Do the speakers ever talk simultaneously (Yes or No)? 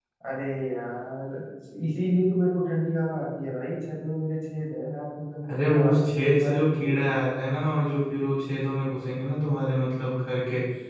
Yes